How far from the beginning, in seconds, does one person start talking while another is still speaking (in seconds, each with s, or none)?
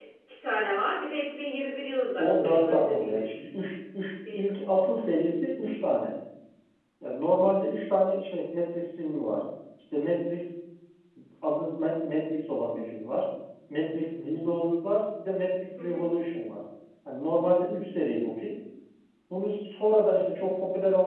2.2 s